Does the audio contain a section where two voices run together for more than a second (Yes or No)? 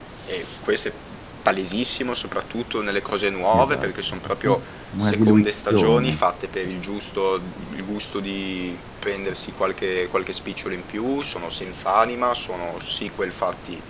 Yes